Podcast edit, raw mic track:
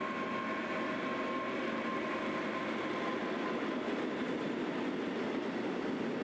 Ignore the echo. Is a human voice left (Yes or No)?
No